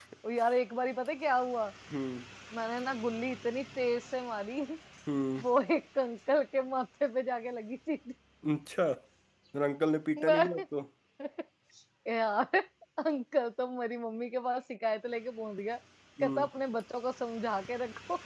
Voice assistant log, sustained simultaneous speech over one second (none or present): none